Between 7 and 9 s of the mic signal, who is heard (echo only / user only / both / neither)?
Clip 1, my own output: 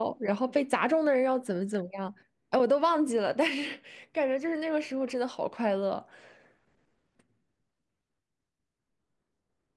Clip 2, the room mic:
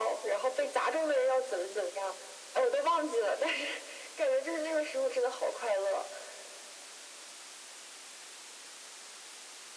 neither